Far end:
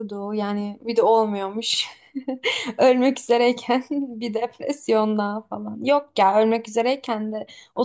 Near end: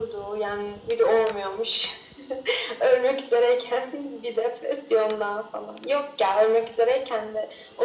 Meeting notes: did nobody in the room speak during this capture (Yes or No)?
Yes